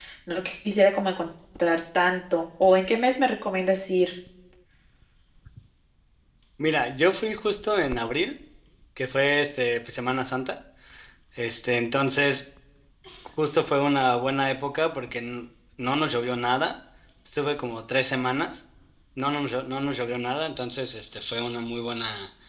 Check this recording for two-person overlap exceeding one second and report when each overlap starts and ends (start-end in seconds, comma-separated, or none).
none